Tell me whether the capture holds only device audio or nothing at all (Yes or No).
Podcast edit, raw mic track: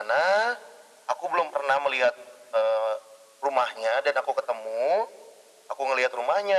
Yes